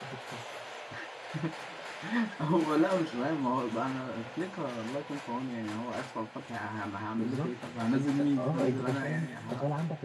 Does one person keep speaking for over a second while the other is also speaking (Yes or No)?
Yes